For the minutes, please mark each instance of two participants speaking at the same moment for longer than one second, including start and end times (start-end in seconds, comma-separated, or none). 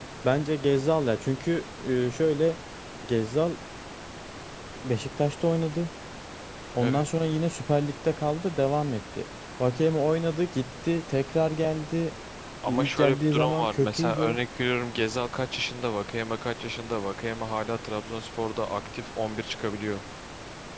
12.6-14.4